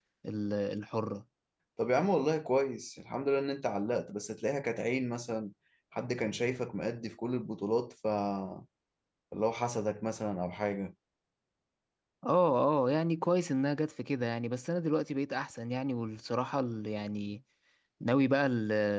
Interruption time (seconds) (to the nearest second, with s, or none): none